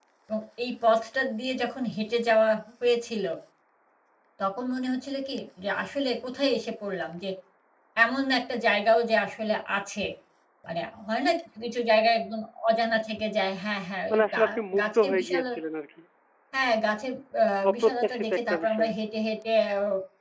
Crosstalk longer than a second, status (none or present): present